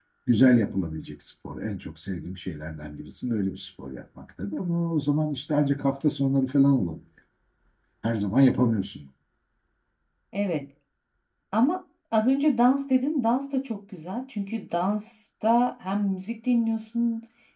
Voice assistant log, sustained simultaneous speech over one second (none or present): none